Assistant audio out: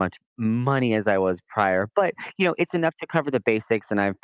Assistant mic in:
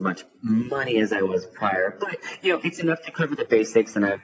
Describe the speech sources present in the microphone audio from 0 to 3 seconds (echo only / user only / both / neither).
echo only